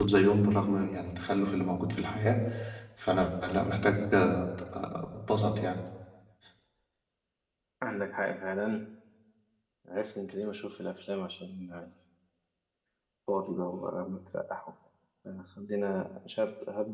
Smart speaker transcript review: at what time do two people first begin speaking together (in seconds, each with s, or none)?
none